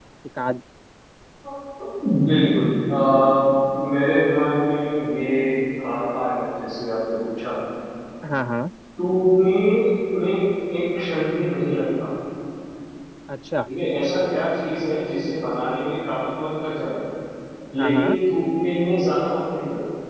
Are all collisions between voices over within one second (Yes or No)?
Yes